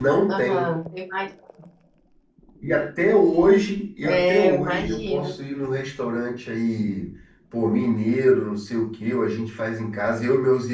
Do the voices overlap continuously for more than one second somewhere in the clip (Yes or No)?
Yes